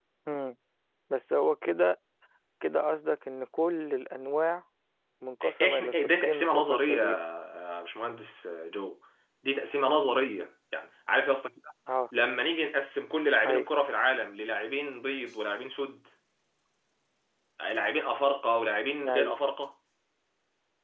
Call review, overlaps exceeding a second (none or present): present